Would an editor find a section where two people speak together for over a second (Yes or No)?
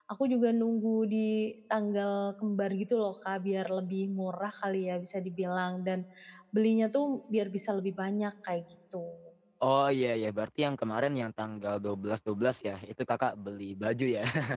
No